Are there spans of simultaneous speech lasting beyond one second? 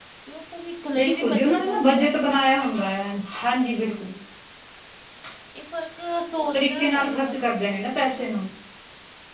Yes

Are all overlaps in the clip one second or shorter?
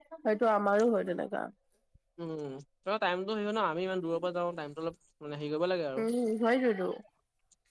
Yes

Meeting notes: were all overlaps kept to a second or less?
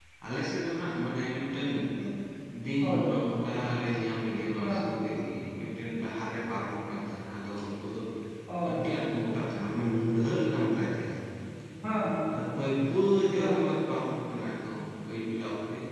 Yes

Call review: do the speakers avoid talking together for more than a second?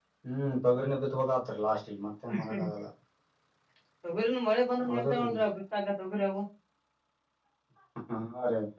Yes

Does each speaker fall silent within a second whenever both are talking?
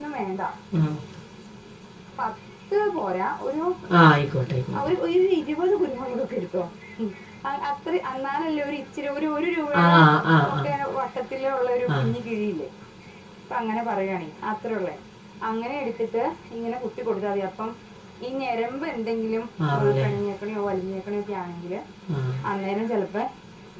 Yes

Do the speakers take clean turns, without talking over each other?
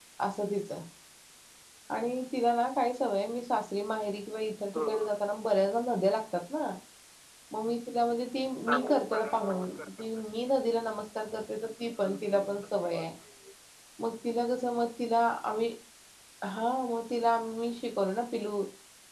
No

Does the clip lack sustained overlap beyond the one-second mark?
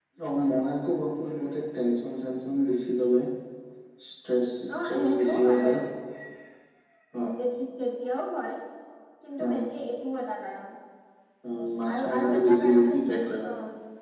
No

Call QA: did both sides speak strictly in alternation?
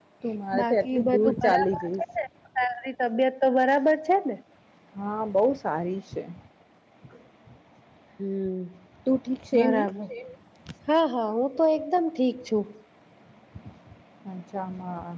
No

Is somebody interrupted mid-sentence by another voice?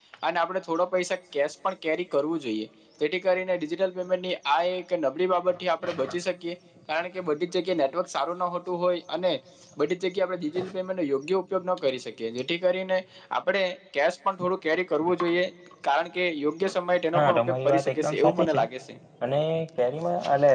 Yes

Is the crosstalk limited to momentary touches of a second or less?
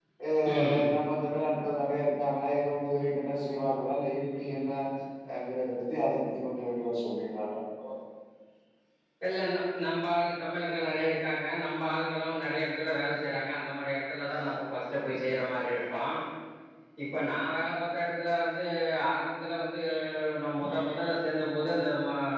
Yes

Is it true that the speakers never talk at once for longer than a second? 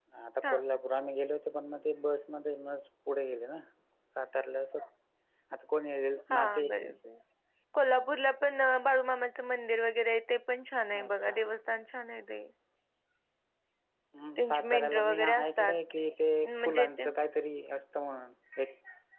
No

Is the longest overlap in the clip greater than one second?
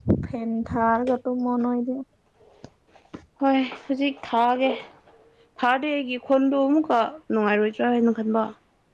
No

